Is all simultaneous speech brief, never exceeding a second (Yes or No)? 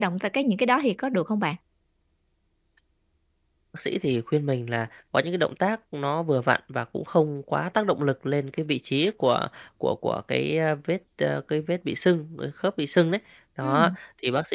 Yes